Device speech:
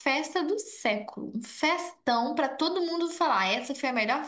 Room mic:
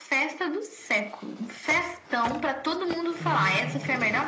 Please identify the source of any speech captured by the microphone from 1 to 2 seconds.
echo only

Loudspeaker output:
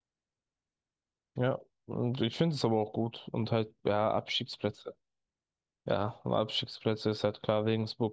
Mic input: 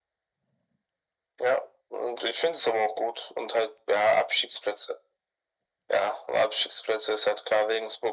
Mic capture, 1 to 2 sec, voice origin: echo only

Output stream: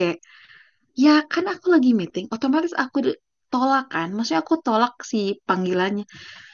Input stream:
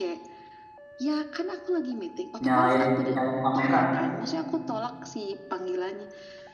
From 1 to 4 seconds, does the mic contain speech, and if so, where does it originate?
both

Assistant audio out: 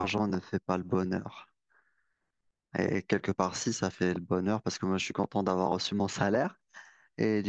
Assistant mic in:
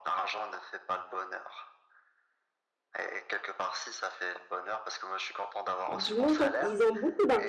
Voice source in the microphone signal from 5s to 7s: both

